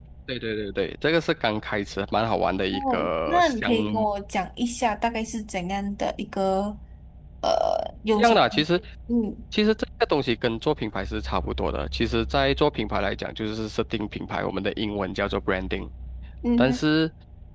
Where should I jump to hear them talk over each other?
2.7 s

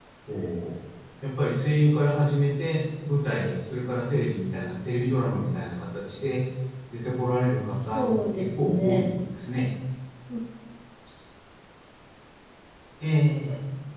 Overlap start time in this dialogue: 7.9 s

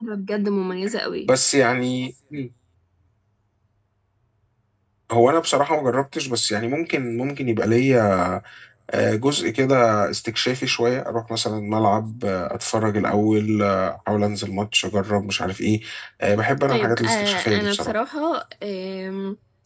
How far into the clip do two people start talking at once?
16.7 s

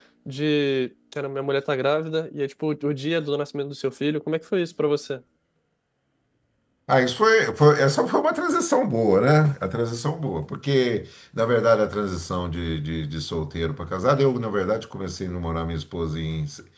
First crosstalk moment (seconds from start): none

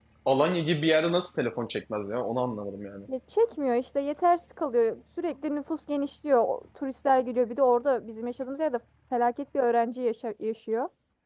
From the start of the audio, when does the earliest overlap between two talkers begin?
none

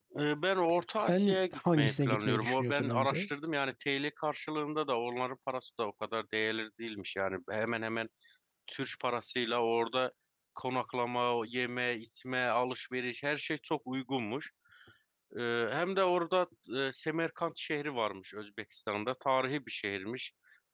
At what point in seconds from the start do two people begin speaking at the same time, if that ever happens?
1.0 s

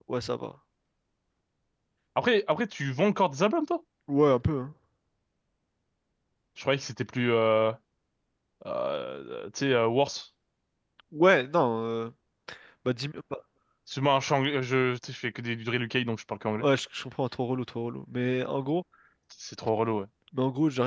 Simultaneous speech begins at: none

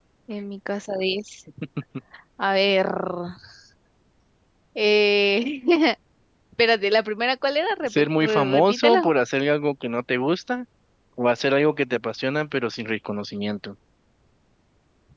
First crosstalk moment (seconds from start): 7.8 s

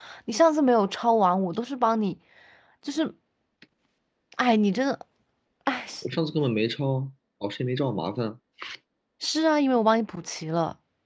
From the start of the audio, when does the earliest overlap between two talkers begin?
none

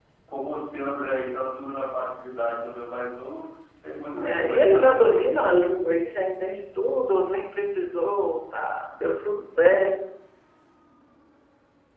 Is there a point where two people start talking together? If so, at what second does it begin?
4.1 s

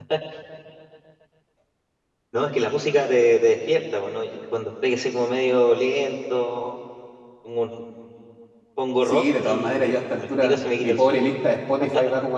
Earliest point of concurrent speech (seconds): 9.1 s

